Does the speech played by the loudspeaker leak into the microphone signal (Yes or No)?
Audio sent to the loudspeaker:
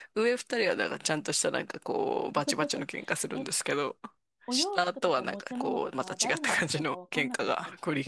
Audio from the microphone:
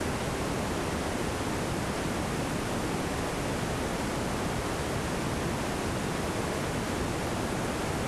No